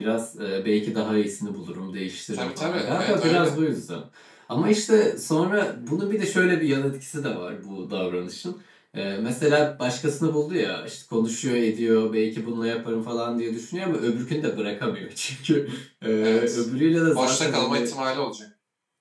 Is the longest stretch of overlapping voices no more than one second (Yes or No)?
No